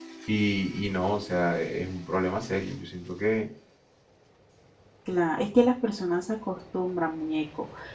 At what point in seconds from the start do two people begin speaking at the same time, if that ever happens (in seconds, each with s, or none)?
none